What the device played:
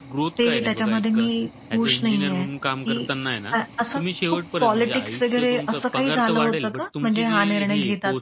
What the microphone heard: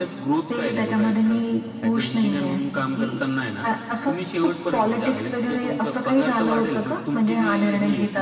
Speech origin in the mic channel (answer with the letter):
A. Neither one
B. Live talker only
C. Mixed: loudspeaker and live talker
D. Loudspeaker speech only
D